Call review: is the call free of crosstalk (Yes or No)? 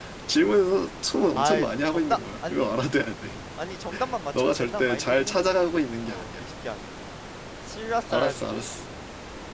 No